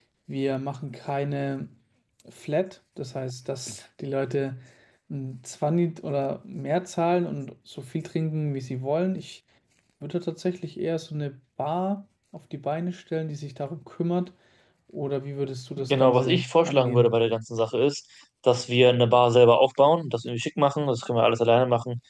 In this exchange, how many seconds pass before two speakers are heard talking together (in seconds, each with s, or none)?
15.8 s